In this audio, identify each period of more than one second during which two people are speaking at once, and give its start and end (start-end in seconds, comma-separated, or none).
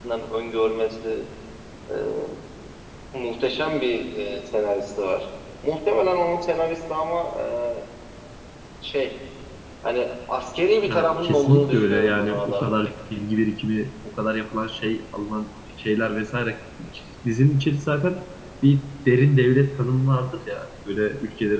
10.9-12.7